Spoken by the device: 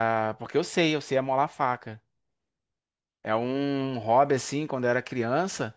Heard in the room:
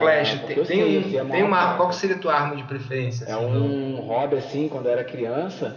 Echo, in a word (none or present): present